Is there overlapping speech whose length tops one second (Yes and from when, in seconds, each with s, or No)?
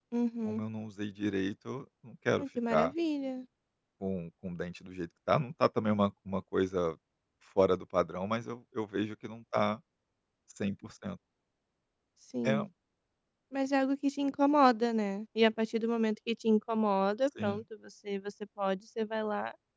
No